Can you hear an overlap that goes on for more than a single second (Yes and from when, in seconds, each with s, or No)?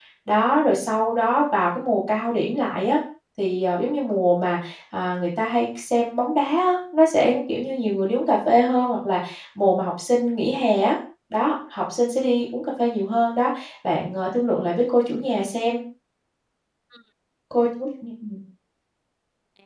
No